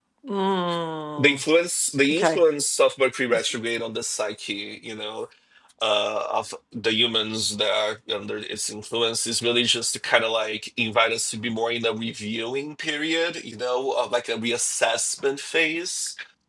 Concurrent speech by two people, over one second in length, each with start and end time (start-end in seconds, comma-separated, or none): none